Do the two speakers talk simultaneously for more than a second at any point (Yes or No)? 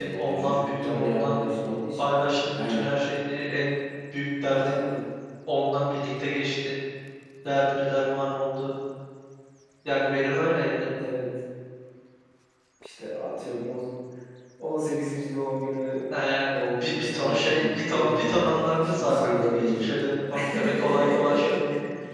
Yes